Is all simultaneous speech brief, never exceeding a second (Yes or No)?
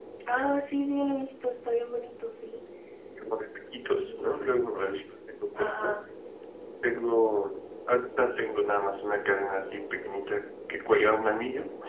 Yes